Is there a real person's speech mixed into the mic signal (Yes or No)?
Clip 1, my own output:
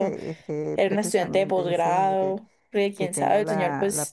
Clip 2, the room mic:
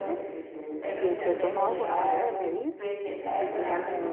Yes